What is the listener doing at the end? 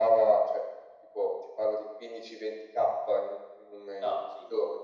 listening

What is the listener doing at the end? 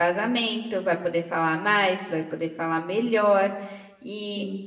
listening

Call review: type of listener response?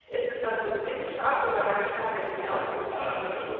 taking over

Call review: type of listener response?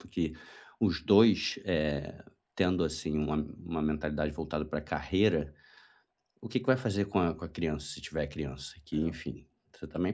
listening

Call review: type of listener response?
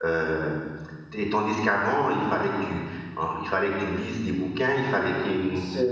listening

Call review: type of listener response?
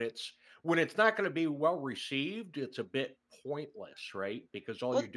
taking over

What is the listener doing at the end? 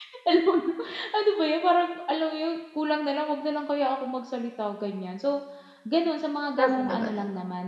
listening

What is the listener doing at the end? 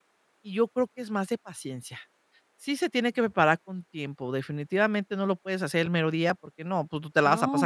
taking over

